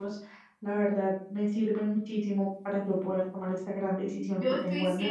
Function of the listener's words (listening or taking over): taking over